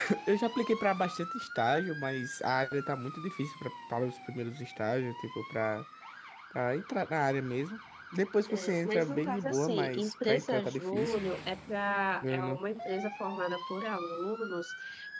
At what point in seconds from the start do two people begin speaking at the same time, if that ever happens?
8.5 s

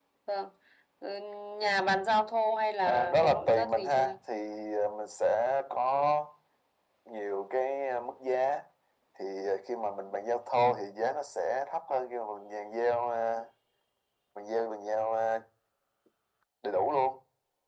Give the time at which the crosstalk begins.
2.9 s

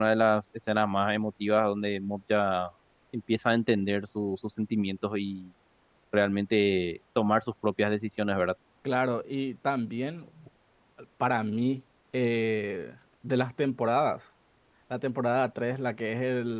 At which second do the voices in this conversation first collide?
none

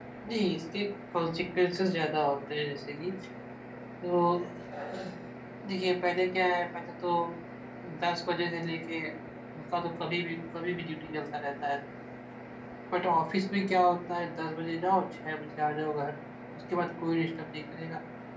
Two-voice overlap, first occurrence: none

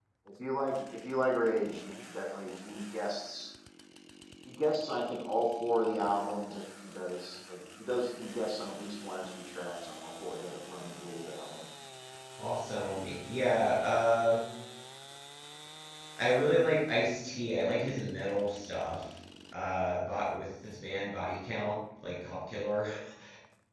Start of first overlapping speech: none

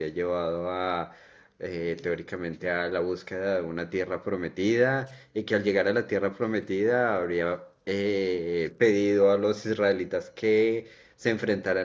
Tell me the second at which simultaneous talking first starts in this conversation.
none

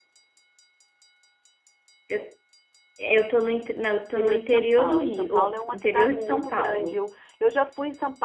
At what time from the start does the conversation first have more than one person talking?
4.2 s

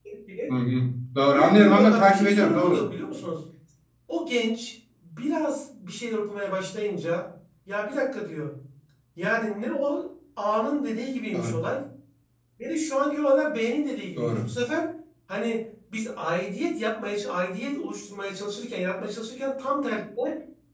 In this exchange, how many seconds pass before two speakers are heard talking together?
1.3 s

